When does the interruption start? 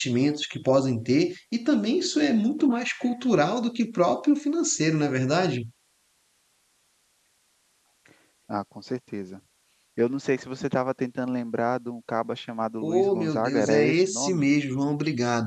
12.8 s

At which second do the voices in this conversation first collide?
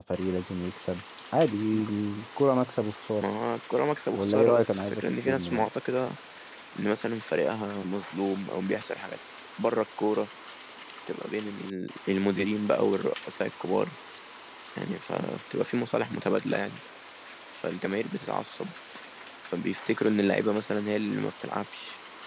4.1 s

